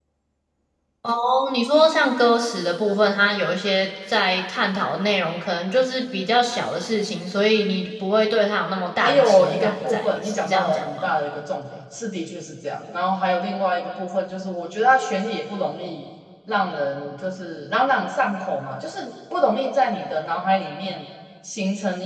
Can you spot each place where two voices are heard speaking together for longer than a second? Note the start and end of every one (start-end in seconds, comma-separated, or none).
9.0-11.1